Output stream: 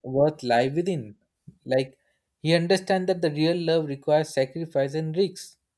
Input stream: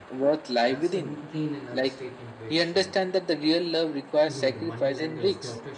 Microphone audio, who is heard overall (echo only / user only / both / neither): both